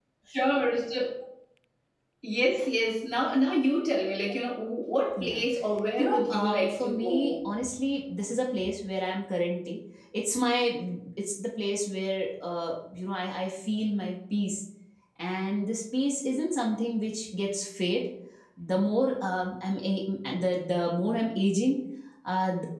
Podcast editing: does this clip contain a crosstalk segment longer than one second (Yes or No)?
Yes